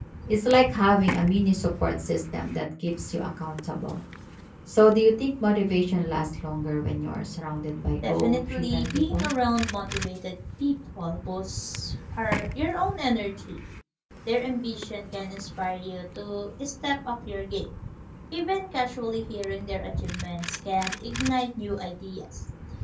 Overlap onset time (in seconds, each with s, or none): 8.0 s